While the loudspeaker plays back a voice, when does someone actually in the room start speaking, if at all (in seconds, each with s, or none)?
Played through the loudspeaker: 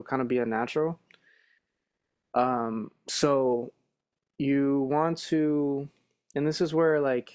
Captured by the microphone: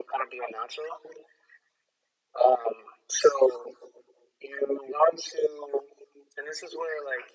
none